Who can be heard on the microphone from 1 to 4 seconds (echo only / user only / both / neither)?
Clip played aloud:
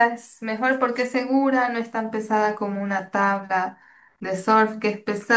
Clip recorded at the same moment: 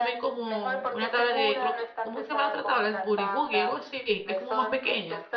both